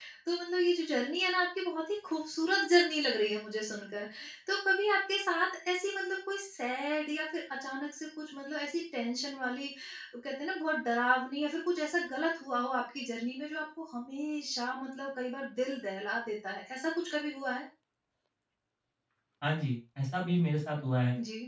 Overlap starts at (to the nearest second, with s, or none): none